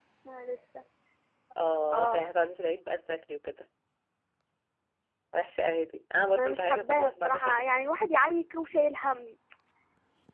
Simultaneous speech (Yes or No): Yes